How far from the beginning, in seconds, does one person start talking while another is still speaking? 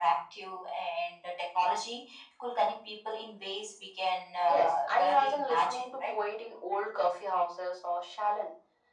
4.5 s

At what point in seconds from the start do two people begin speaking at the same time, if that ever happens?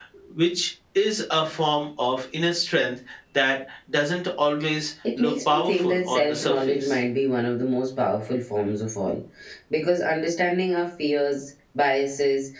5.0 s

